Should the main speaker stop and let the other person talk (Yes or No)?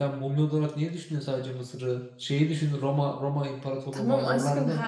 Yes